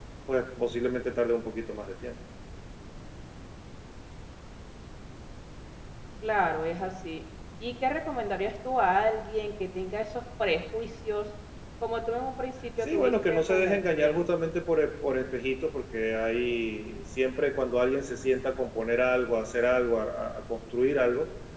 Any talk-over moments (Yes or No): Yes